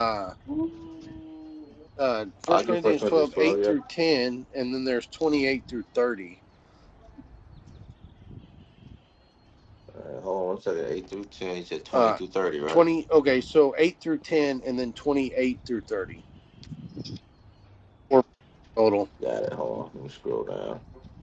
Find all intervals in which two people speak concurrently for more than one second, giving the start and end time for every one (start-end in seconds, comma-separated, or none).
2.5-3.7